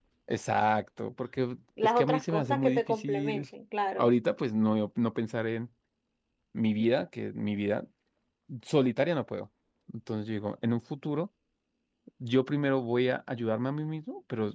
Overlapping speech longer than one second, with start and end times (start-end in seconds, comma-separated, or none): 1.8-3.4